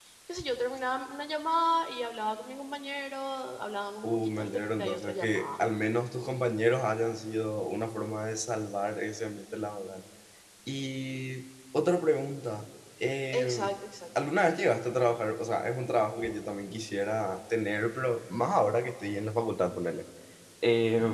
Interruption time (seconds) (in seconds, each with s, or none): 4.0 s